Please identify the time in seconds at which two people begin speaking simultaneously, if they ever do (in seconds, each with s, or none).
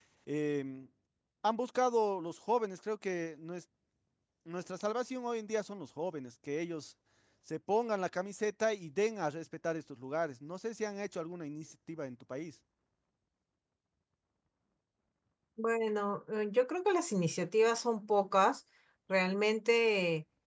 none